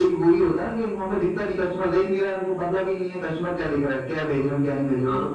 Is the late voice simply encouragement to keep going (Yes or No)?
Yes